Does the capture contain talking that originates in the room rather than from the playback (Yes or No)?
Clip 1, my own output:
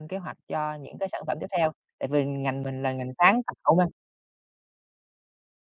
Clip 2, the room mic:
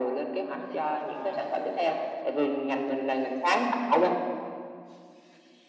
Yes